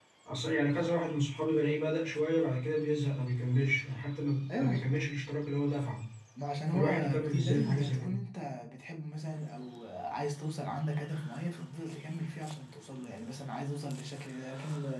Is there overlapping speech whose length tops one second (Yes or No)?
Yes